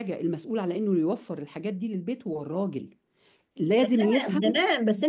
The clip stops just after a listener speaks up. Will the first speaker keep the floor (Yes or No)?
No